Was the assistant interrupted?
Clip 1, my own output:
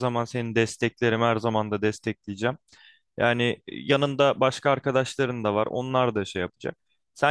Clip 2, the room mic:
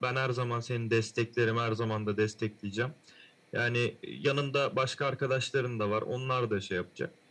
No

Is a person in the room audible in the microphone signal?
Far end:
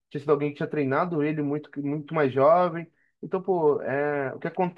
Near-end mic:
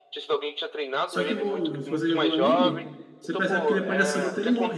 Yes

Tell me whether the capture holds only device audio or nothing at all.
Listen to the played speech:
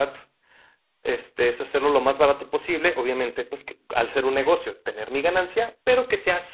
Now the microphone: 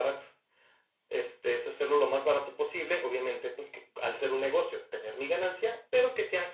Yes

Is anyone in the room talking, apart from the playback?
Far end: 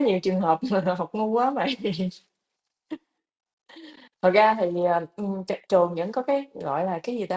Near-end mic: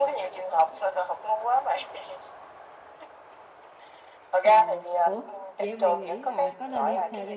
Yes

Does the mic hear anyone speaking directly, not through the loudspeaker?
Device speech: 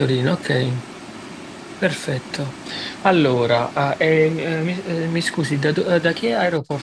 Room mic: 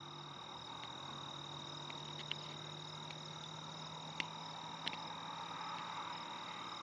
No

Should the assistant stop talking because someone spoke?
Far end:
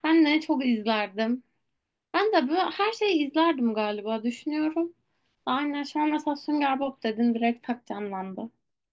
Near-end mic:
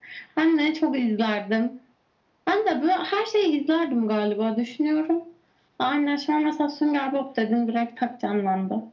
No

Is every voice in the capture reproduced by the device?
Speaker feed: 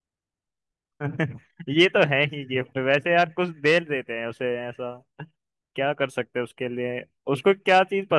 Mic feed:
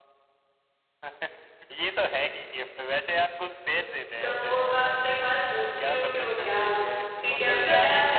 No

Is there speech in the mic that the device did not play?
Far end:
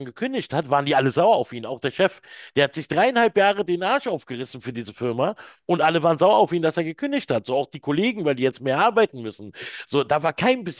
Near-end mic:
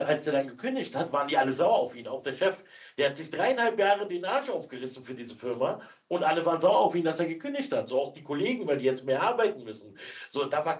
No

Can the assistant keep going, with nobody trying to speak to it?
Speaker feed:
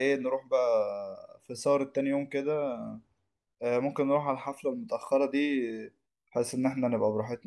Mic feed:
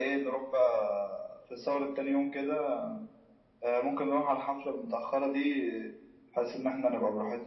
Yes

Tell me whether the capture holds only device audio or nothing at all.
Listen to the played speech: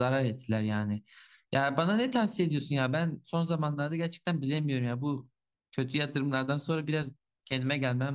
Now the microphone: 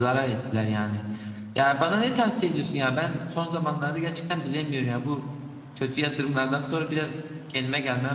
Yes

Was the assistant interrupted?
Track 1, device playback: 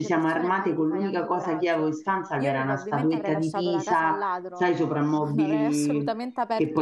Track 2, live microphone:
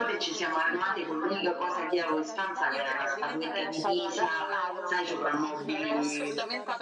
Yes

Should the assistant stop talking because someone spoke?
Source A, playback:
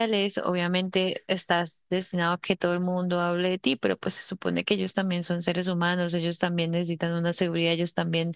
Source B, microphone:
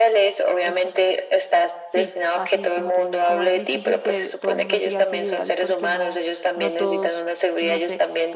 Yes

